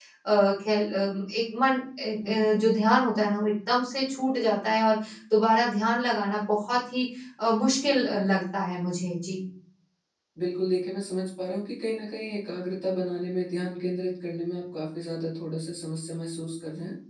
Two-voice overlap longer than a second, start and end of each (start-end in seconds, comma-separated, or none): none